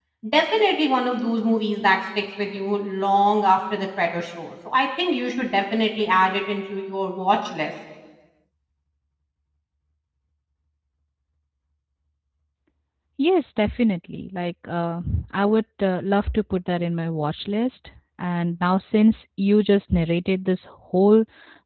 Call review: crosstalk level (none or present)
none